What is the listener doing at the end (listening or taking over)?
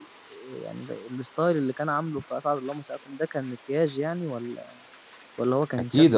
taking over